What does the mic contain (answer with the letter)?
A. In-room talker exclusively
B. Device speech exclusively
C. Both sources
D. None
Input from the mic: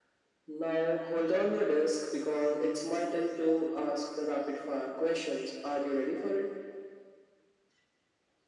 B